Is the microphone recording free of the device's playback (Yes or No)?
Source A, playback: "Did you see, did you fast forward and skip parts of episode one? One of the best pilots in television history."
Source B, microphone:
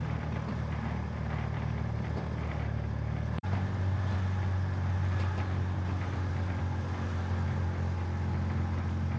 Yes